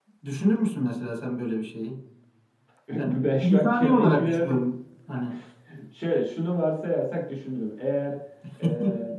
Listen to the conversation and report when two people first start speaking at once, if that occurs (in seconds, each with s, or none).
3.1 s